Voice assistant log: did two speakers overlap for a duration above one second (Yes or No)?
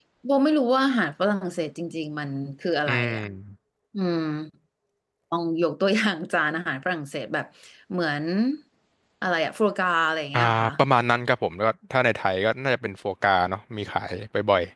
No